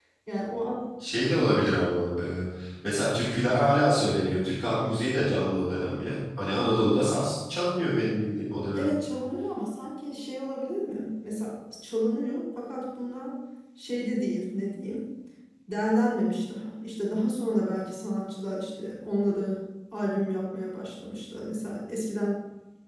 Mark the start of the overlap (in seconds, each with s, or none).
none